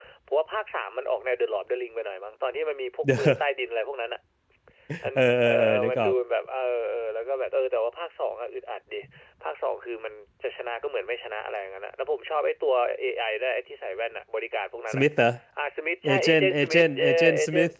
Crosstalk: present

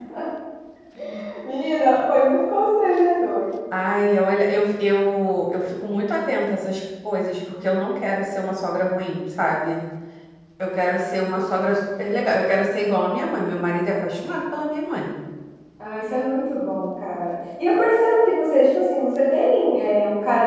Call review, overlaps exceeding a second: none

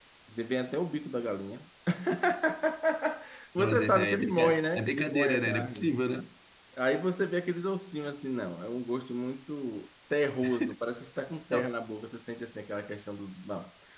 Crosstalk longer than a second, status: present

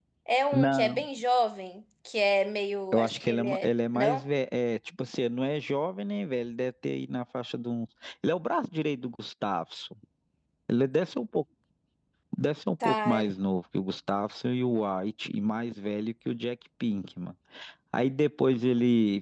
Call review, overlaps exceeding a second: present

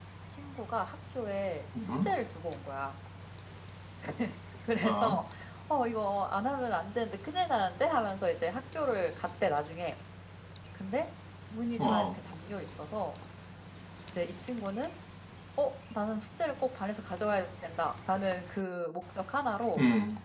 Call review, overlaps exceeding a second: none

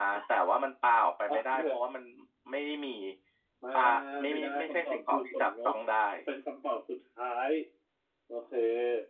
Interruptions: present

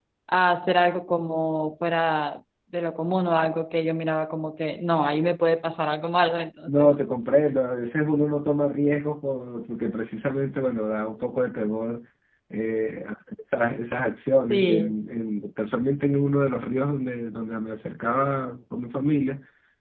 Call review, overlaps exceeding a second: none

